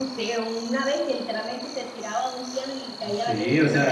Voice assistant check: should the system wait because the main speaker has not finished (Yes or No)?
No